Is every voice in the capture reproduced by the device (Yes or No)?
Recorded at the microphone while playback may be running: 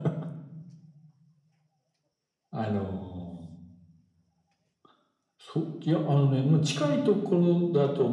Yes